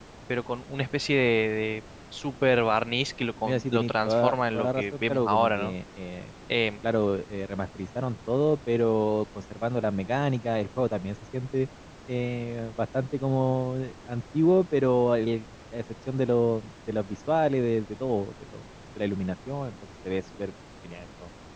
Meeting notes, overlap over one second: present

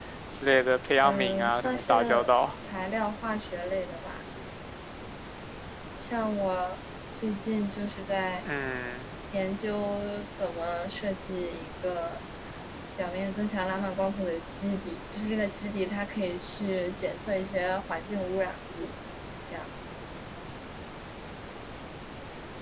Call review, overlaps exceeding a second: present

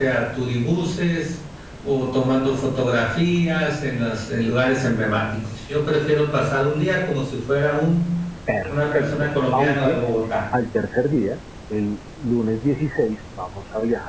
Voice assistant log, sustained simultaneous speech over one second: present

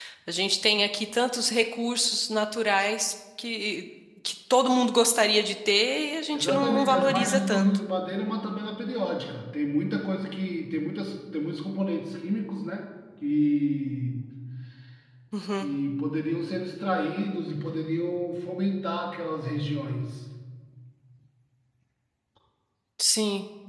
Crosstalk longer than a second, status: present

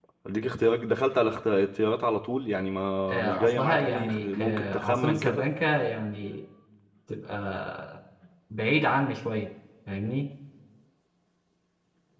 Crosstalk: present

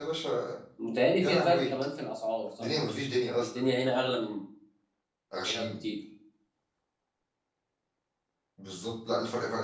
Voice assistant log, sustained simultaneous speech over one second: none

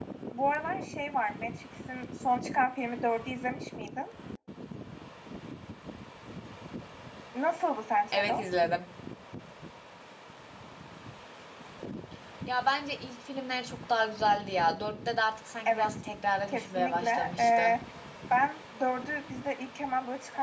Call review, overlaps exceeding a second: present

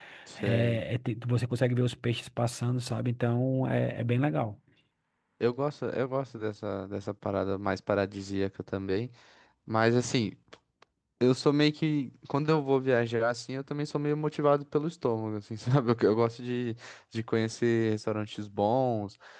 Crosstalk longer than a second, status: none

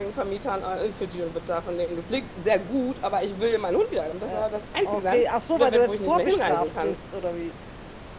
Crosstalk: present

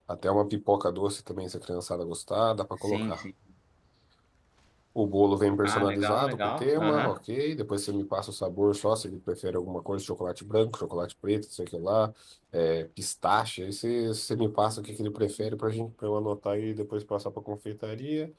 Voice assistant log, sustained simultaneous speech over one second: present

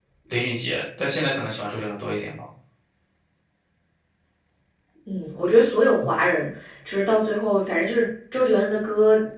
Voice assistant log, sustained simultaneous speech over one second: none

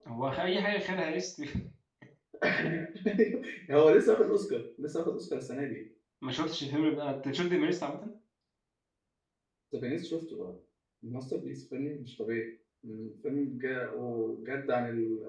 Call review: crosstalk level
none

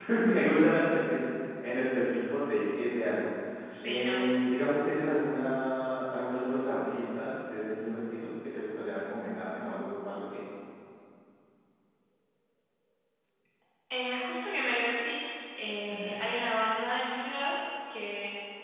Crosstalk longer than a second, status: none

